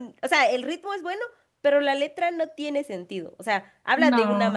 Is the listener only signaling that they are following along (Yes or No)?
Yes